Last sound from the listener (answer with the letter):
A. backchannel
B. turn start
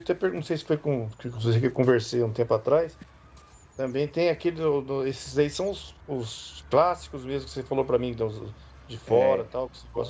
A